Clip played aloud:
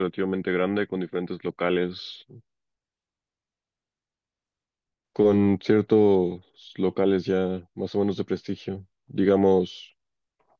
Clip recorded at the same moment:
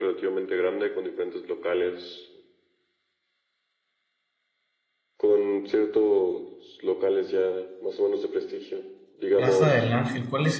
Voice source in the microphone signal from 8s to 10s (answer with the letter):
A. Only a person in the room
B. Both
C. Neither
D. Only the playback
B